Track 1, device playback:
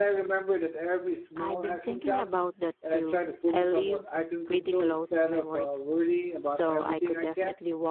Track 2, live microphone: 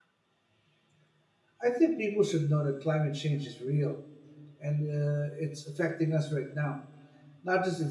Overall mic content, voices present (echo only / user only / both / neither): user only